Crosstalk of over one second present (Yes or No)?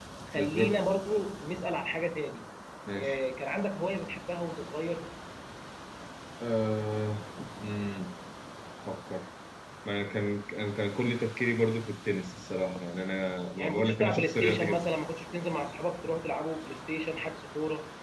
Yes